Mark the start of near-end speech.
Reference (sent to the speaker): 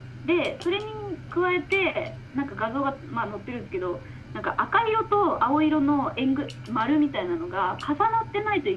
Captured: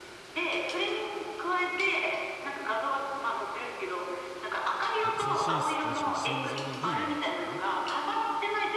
5.0 s

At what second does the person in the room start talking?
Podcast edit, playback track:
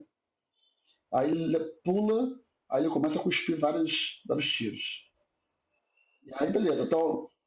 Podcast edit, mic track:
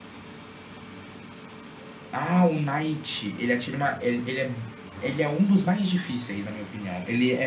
2.1 s

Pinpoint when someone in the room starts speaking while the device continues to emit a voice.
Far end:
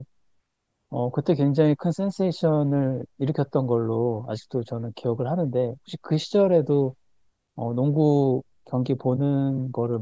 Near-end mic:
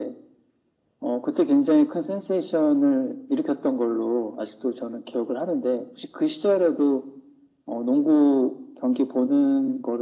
none

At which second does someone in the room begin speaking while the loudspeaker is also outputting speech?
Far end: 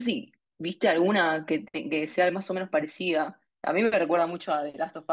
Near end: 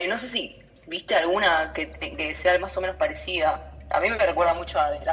none

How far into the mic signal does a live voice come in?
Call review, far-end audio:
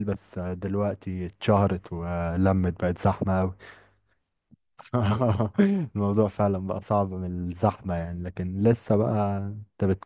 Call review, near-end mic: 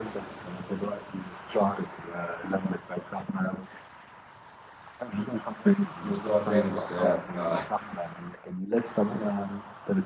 6.0 s

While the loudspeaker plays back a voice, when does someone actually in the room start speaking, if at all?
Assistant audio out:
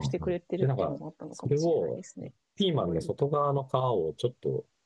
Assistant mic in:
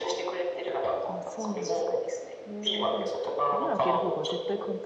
1.0 s

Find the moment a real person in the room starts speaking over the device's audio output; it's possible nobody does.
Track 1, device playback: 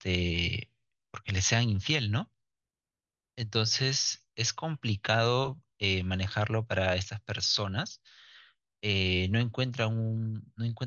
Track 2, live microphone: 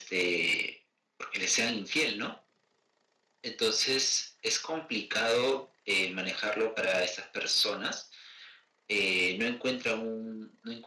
none

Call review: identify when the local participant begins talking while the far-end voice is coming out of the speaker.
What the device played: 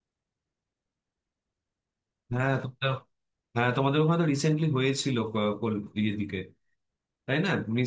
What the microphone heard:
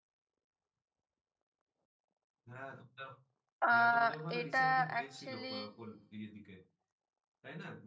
3.6 s

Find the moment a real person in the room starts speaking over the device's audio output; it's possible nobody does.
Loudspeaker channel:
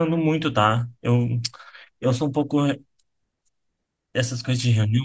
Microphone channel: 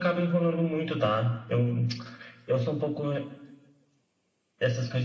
none

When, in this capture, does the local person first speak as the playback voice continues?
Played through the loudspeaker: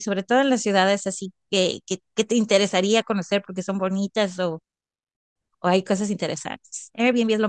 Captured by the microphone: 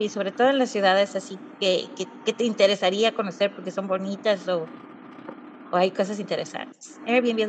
none

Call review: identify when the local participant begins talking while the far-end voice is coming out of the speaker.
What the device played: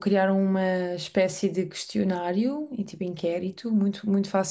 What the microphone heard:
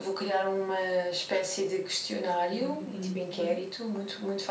2.5 s

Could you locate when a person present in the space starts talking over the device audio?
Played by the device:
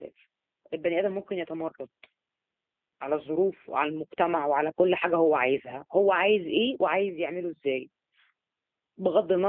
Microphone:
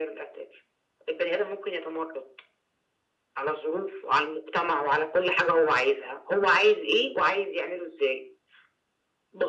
none

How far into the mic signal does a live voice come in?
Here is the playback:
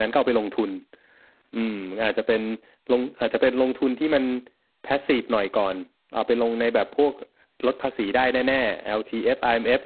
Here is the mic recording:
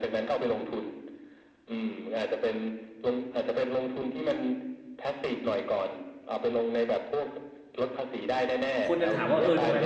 8.8 s

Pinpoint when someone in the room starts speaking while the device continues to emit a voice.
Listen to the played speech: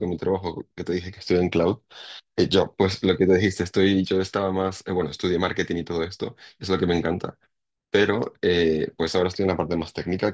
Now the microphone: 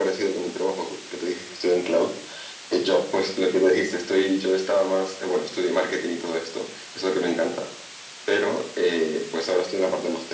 none

